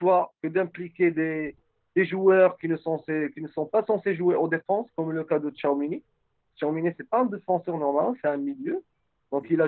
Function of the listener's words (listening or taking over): listening